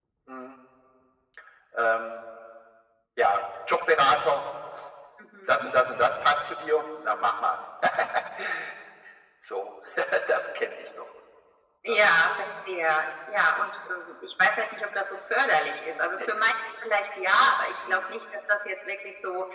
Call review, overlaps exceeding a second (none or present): none